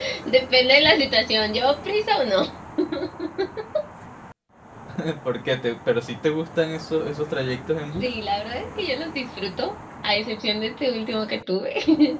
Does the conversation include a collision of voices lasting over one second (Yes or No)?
No